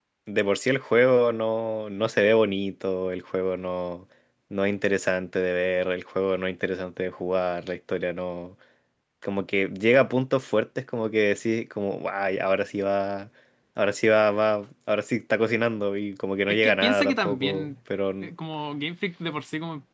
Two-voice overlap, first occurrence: 16.5 s

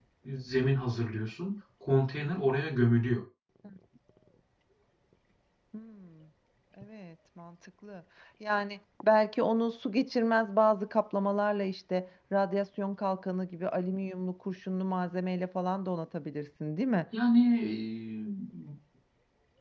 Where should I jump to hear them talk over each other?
none

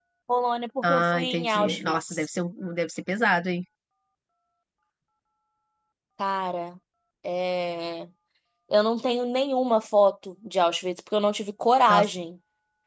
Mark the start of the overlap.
0.8 s

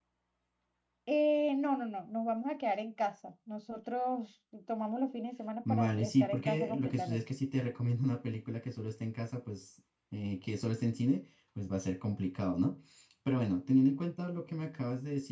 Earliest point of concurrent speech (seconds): 5.6 s

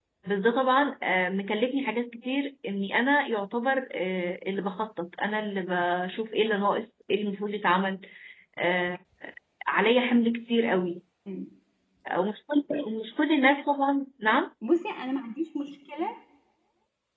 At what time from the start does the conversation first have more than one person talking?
none

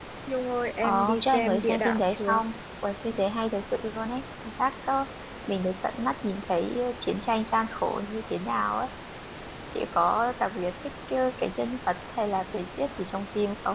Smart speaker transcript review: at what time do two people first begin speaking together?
0.8 s

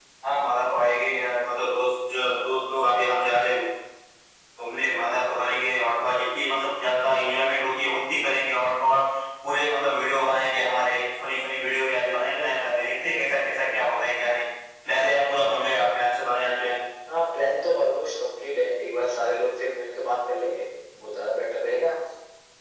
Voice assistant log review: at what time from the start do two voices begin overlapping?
none

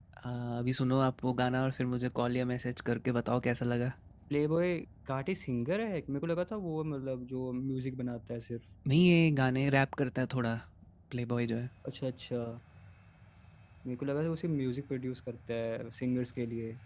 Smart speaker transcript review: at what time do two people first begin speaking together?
none

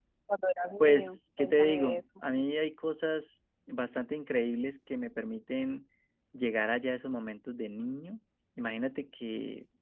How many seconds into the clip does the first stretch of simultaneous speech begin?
0.8 s

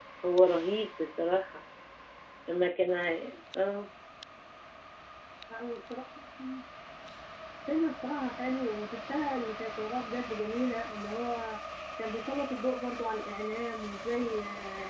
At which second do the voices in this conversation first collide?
none

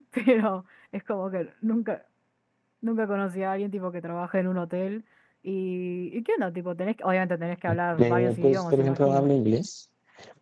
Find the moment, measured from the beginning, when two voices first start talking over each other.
8.0 s

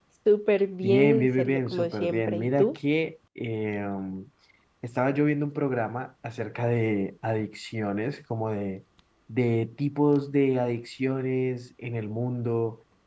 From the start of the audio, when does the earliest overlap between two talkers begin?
0.8 s

